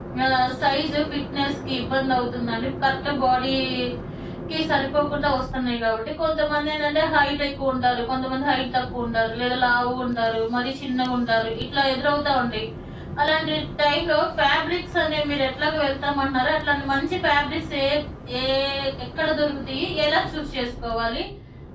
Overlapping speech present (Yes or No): No